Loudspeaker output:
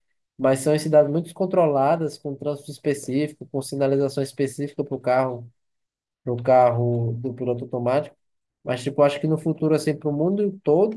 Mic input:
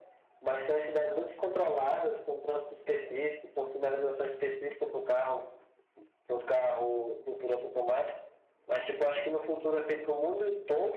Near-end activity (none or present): none